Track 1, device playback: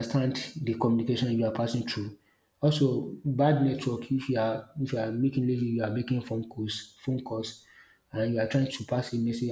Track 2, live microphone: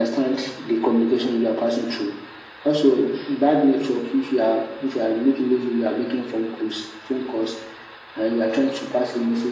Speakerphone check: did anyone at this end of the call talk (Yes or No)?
No